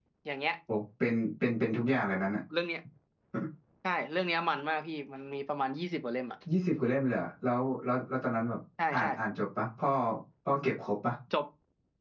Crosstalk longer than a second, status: none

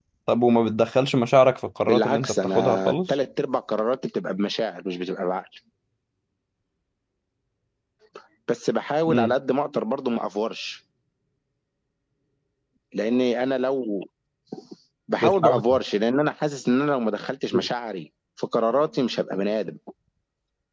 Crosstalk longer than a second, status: present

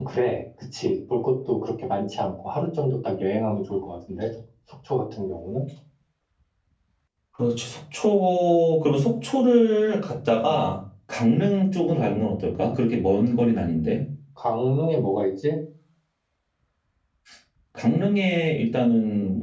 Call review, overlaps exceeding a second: none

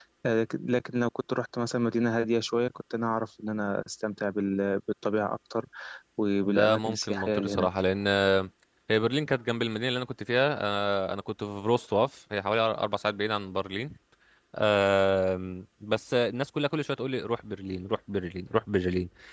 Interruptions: present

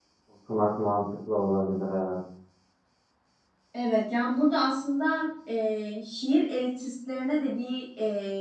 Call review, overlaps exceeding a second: none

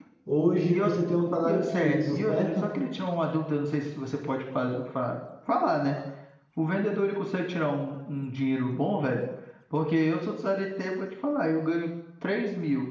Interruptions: present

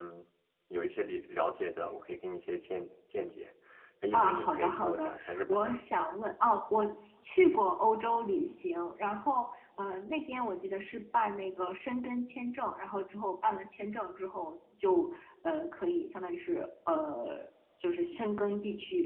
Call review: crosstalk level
present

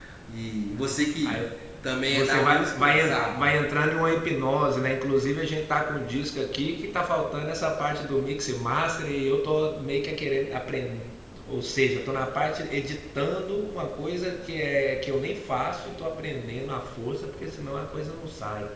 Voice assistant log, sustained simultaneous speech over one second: present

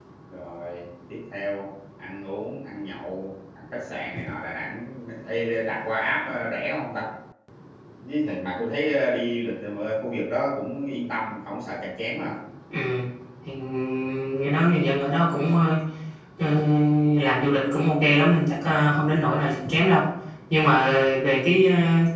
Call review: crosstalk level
none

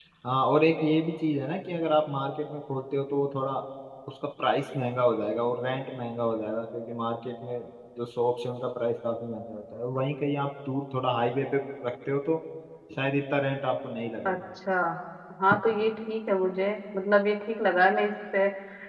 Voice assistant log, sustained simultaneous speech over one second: none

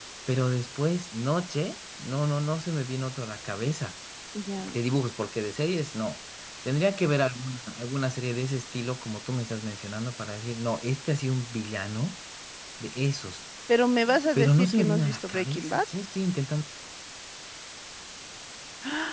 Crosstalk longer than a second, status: present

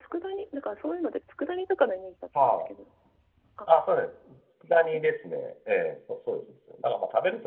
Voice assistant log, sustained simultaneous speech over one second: none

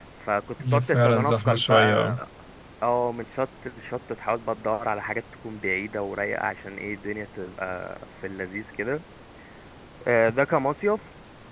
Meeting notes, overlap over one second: present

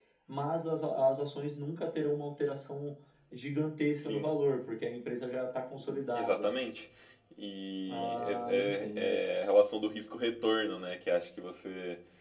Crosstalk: present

